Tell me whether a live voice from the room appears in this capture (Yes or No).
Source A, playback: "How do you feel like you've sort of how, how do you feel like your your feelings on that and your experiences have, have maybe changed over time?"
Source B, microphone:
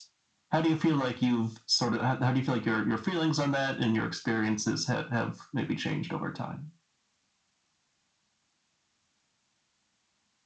No